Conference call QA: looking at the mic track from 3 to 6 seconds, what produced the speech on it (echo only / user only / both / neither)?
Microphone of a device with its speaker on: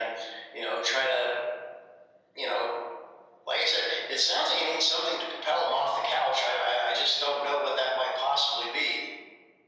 echo only